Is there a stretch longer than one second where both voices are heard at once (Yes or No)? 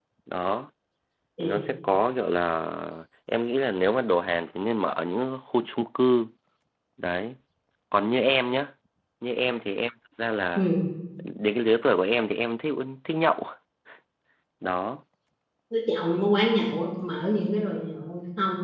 No